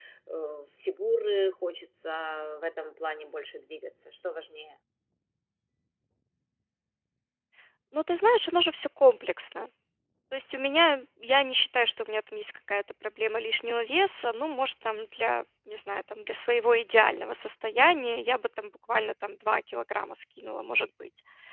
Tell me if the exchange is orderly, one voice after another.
Yes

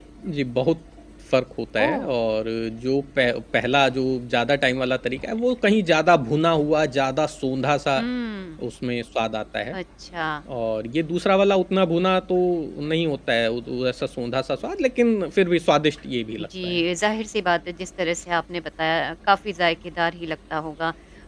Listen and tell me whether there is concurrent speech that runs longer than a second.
No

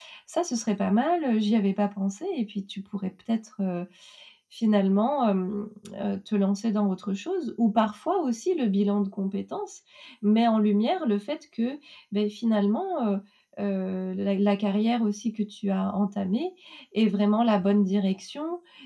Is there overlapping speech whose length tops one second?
No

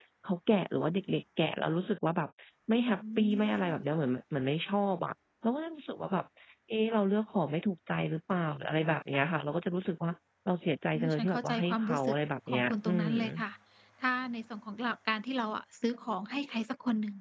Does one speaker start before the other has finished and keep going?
Yes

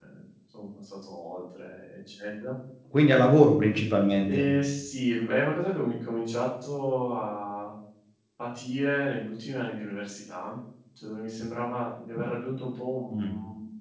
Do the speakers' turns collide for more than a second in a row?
No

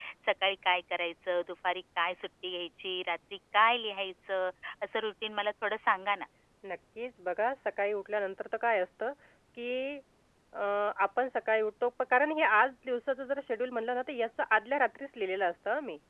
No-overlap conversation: Yes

